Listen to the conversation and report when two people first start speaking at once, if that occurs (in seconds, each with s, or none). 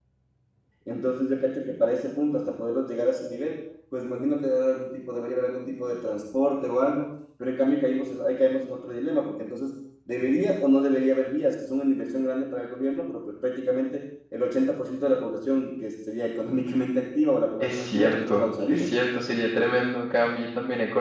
17.6 s